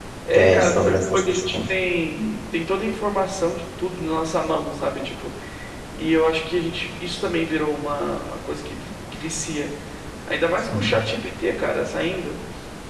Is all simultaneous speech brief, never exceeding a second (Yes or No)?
No